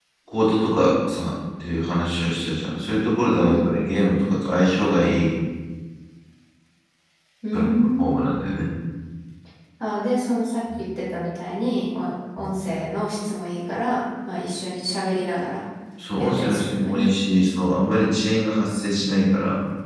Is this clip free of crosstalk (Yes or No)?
No